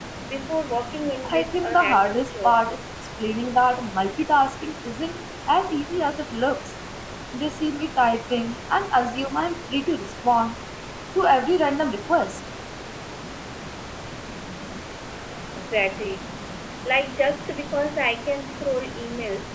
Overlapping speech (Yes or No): Yes